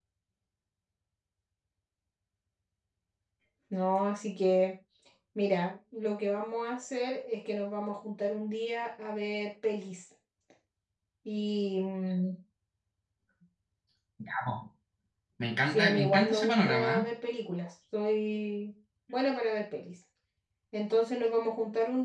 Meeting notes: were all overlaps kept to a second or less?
No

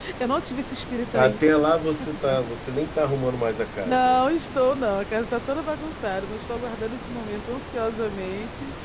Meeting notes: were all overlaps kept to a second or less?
Yes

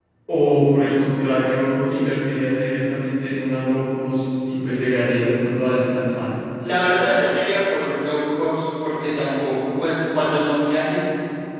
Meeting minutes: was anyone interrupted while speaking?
No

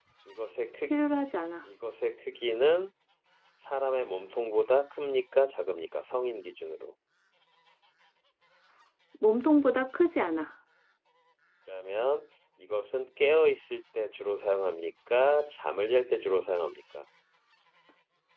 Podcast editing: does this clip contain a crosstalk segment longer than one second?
No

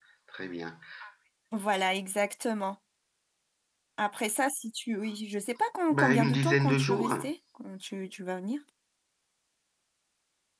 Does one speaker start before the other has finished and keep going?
Yes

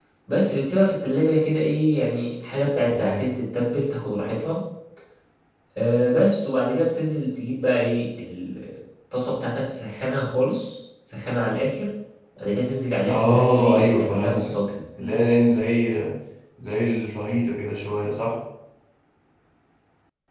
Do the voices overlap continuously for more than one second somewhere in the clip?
Yes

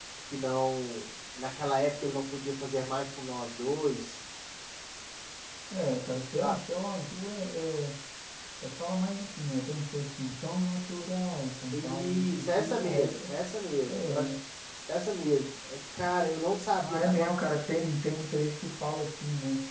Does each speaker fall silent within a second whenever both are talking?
No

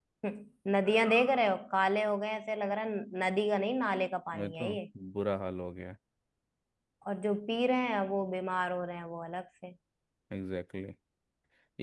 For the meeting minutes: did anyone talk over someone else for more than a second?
No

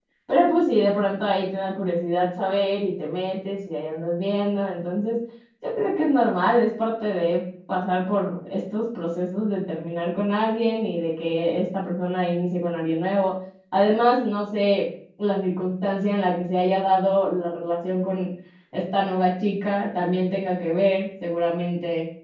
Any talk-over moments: No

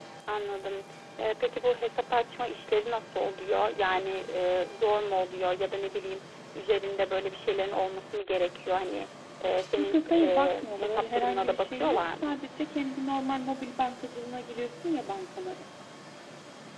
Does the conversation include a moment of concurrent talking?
Yes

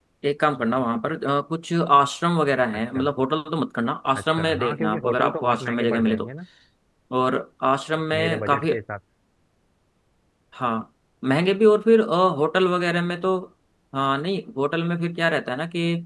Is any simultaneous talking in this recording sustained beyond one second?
Yes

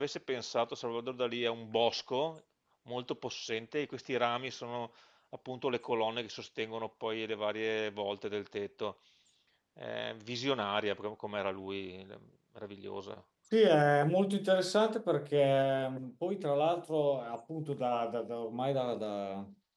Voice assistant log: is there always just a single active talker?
Yes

